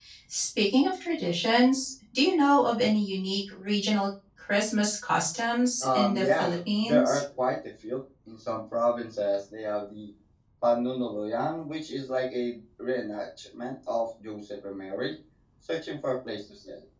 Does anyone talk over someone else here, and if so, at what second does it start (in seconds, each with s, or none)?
5.8 s